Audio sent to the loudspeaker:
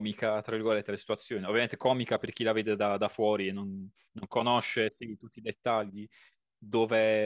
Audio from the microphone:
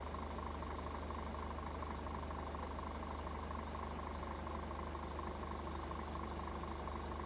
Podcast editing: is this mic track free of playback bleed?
Yes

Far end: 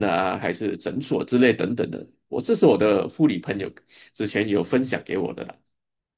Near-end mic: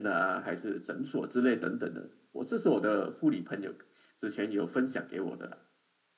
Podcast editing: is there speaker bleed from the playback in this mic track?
Yes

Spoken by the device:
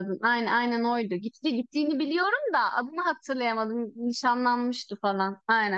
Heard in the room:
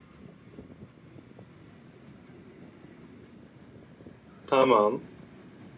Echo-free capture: Yes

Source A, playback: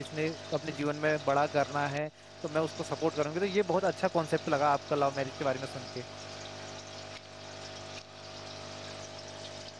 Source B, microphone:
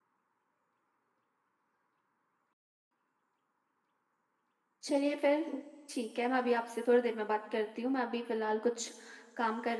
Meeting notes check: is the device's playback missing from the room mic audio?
Yes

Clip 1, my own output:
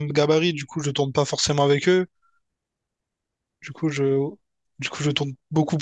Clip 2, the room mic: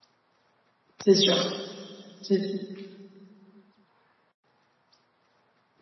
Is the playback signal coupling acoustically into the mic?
No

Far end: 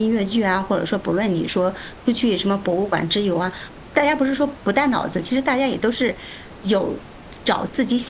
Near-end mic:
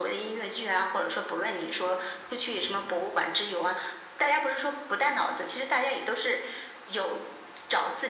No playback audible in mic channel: No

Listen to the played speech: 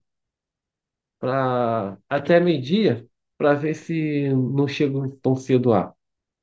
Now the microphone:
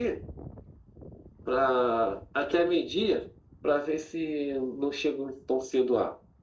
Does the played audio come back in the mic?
Yes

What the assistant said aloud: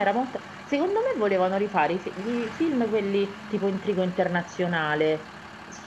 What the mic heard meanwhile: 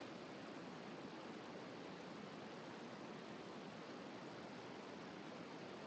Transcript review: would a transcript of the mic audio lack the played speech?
Yes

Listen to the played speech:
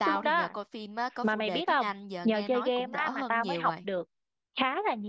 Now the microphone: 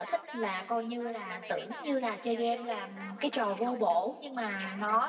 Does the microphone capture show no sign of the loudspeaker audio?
No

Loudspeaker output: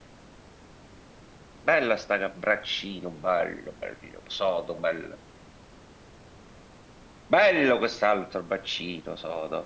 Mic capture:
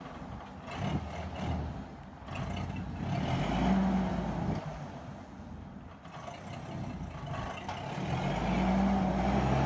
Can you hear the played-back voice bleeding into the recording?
No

